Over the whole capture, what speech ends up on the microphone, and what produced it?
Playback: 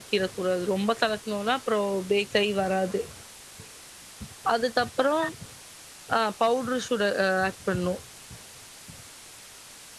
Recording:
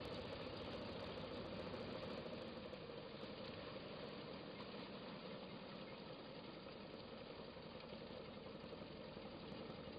neither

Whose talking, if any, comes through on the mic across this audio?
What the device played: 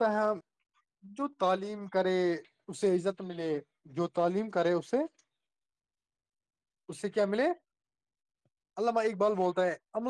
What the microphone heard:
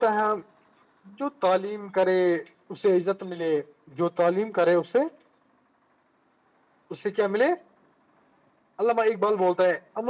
echo only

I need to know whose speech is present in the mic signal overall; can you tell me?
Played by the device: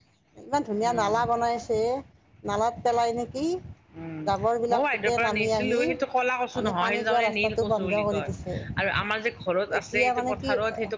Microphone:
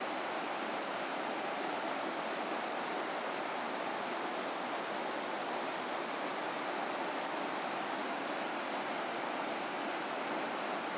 neither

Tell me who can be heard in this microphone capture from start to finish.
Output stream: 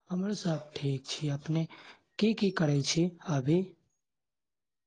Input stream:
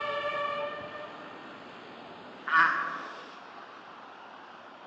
user only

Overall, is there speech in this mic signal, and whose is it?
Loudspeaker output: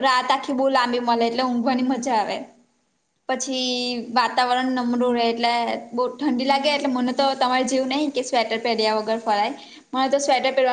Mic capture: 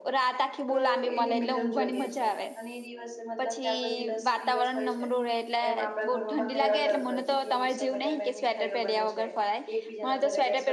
both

